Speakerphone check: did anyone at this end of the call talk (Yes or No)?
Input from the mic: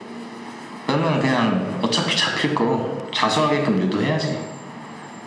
No